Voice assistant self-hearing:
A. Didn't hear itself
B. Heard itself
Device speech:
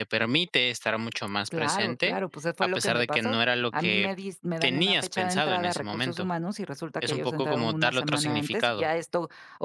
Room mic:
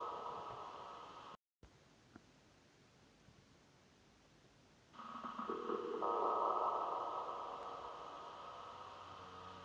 A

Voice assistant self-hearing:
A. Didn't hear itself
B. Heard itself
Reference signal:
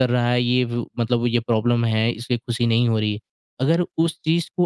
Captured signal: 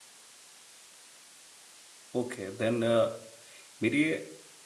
A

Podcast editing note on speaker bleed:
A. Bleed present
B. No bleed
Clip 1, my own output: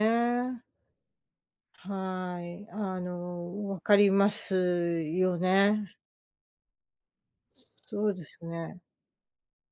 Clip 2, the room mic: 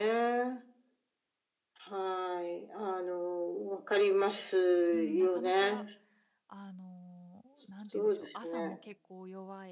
A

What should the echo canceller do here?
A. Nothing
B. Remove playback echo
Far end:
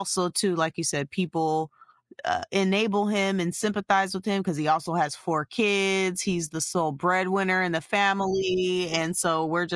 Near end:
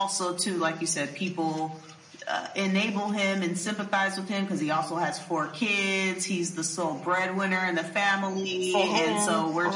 B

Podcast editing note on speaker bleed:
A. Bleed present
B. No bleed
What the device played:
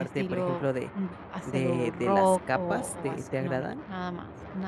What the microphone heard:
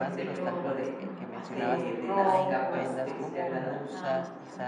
A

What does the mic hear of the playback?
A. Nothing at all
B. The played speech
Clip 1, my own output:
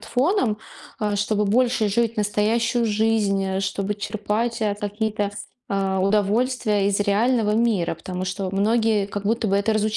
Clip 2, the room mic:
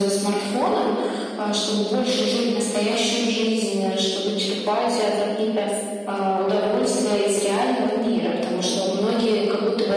B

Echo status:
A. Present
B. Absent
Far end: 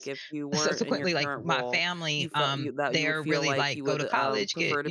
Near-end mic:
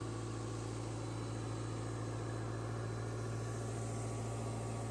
B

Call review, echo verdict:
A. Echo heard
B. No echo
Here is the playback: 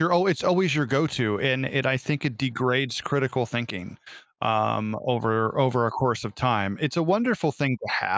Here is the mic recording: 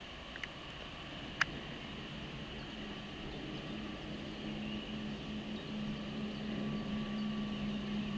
B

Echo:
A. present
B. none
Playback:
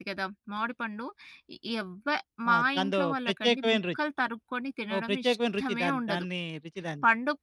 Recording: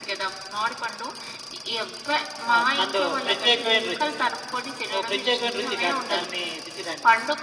A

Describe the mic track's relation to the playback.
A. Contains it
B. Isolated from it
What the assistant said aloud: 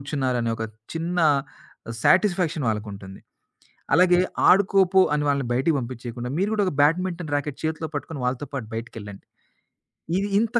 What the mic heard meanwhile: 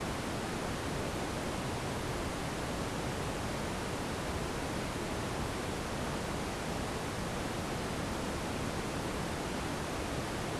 B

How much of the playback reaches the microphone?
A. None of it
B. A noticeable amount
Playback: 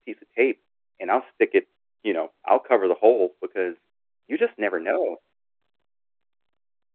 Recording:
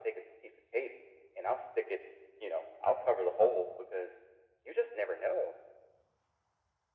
B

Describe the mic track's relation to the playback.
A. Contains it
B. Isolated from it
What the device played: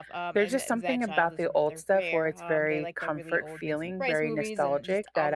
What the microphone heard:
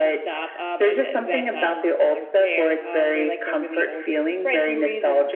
A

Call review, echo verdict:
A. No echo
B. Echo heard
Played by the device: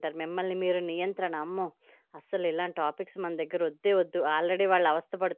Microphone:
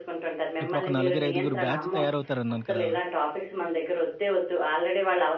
B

